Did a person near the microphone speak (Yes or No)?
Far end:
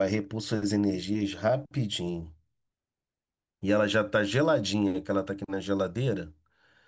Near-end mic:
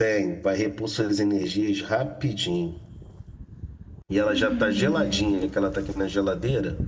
Yes